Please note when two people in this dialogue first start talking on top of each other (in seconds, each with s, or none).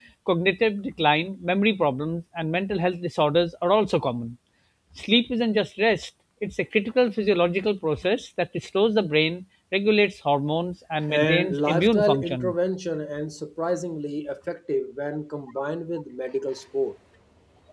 11.0 s